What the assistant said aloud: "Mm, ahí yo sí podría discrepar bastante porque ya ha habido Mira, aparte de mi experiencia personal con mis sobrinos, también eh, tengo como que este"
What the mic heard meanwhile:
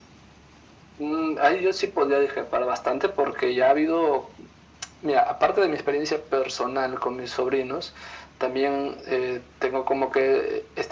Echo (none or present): present